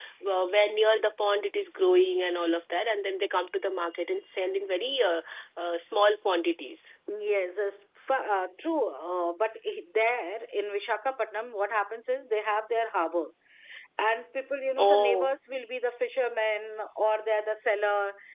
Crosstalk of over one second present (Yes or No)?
No